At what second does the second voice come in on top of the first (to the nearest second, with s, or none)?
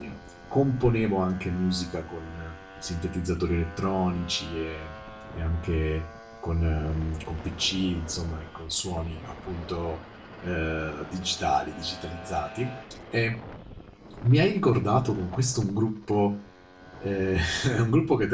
none